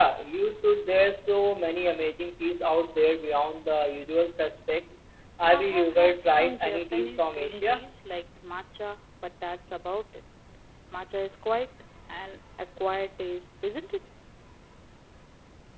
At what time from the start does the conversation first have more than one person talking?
5.5 s

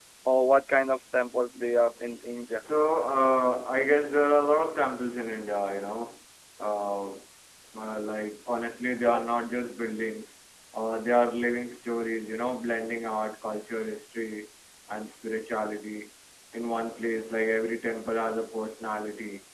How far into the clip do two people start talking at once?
none

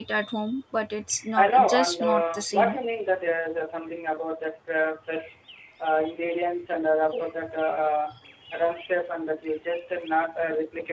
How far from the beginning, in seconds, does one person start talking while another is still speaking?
1.4 s

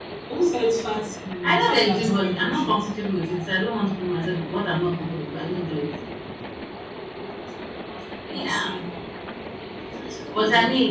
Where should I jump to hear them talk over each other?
1.6 s

